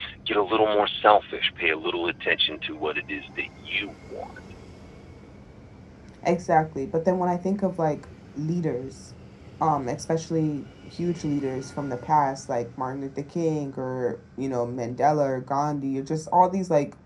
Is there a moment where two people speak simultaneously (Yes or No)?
No